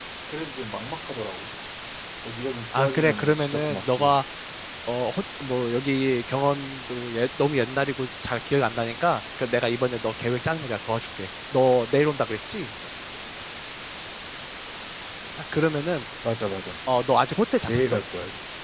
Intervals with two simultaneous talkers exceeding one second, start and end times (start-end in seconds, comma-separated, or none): 2.8-4.1